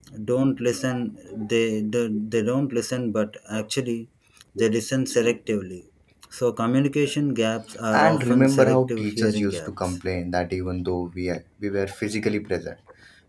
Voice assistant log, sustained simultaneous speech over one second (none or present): present